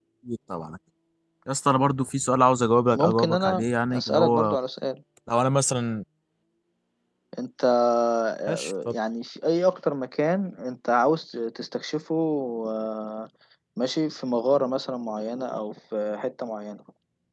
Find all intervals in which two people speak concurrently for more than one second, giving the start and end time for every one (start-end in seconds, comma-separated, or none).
2.9-4.6